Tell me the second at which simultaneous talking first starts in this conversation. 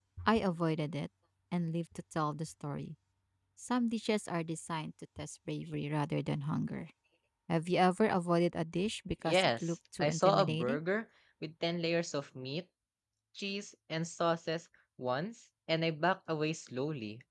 9.3 s

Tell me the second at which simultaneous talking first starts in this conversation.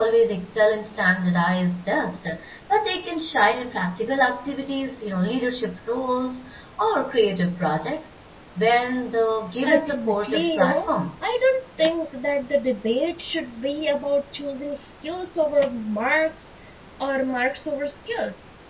9.6 s

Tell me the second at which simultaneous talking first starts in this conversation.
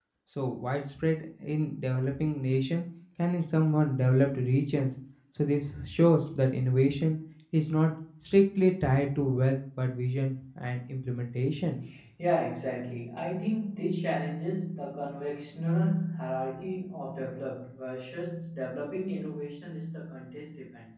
none

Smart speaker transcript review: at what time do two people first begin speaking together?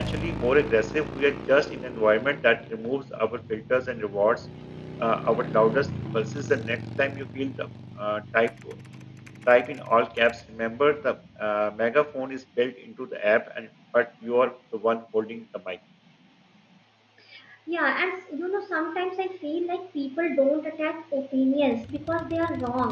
none

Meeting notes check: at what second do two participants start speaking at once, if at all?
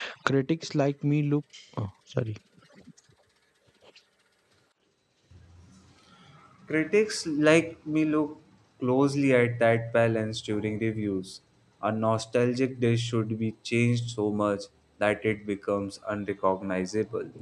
none

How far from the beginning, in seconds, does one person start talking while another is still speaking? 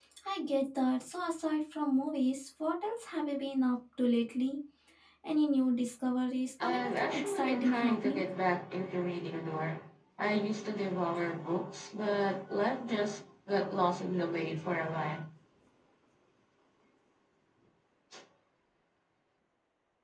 6.6 s

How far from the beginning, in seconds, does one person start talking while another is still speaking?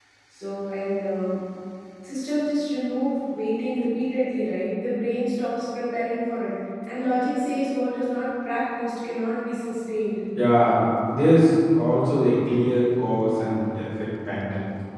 none

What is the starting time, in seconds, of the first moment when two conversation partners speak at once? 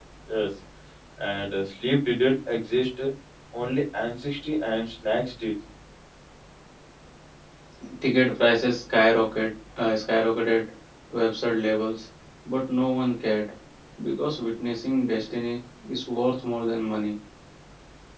none

